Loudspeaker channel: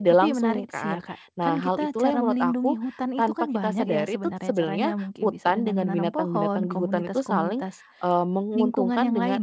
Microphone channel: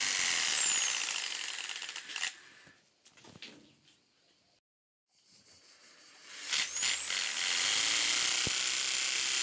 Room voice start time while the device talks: none

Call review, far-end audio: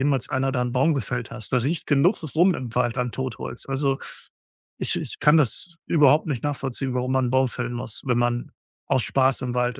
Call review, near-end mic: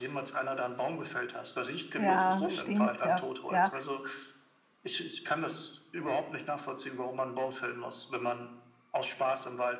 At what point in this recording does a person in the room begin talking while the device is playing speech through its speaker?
2.0 s

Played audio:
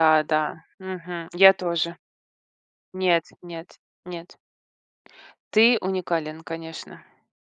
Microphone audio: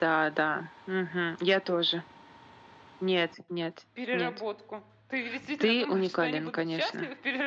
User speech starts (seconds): 3.9 s

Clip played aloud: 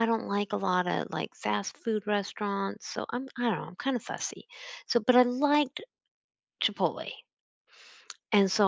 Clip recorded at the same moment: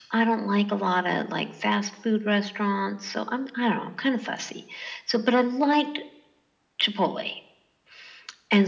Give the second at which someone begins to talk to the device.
none

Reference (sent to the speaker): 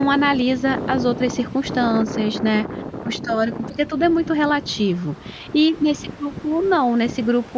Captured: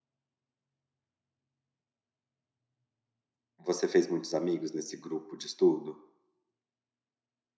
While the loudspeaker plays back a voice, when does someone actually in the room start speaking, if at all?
3.6 s

